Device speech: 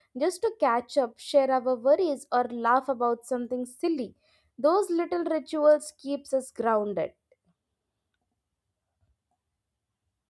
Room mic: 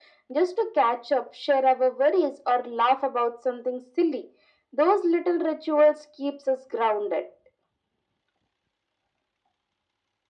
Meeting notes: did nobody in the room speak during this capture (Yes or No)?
Yes